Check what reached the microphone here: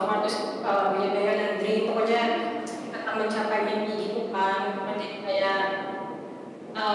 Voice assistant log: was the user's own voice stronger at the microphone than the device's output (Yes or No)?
No